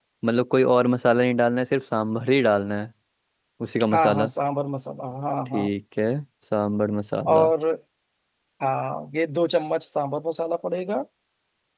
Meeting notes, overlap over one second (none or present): none